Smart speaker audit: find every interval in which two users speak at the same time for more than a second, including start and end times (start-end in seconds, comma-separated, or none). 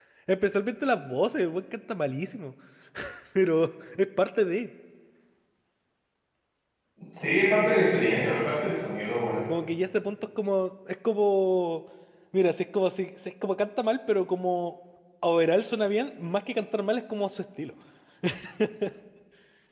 none